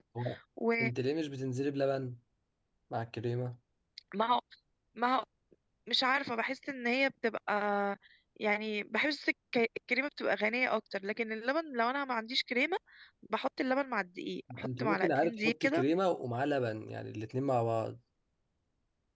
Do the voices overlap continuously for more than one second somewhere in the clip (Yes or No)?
Yes